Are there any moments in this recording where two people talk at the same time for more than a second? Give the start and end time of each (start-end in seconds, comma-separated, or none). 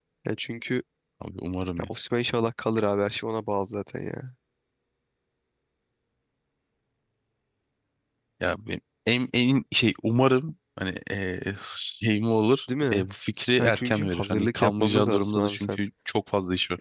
13.6-15.8